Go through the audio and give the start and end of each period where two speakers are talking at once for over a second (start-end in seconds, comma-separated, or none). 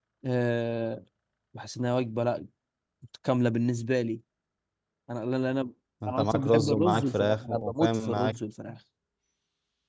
6.1-8.4